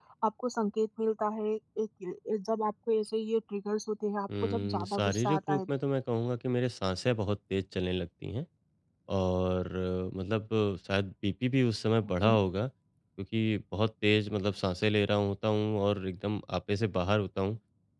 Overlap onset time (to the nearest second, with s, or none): 4 s